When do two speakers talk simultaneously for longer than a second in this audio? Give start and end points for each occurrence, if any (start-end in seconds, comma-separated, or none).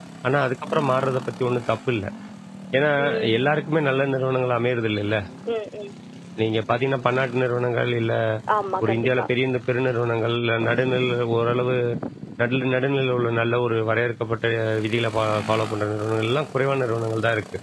none